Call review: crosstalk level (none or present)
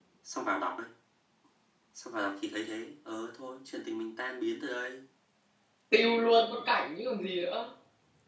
none